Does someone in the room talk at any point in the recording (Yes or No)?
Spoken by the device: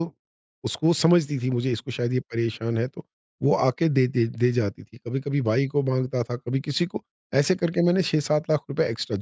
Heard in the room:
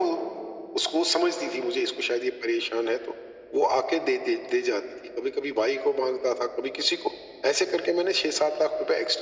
No